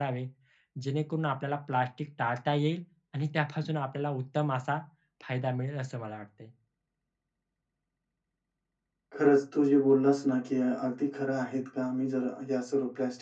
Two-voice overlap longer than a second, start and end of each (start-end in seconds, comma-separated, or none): none